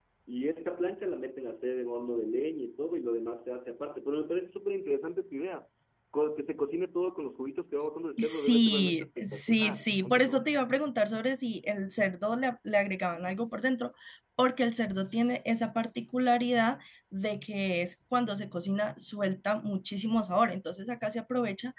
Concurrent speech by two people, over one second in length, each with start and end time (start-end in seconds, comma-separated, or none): 8.2-10.4